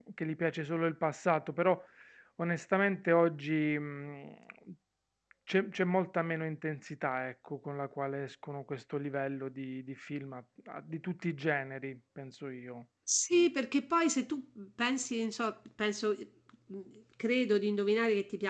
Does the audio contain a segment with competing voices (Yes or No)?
No